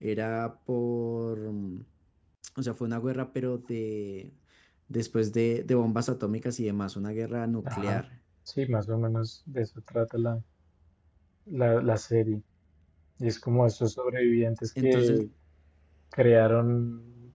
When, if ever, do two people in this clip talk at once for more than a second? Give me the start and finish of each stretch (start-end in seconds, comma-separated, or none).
none